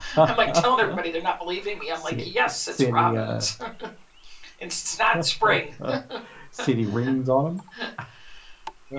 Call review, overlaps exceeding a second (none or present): present